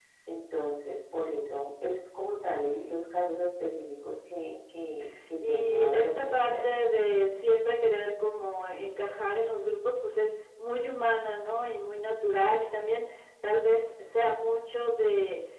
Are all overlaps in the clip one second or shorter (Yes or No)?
No